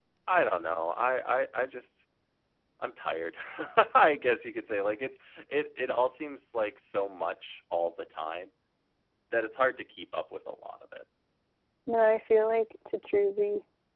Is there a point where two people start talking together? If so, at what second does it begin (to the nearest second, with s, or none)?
none